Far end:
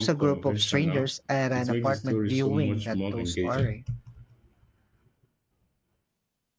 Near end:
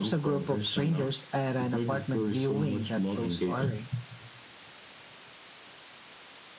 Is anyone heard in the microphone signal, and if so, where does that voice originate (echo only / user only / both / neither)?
echo only